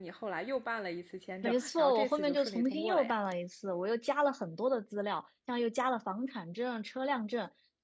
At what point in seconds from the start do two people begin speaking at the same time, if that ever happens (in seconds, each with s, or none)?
1.4 s